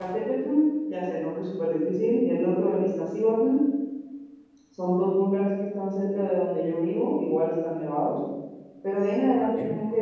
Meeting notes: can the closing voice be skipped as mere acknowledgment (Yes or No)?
Yes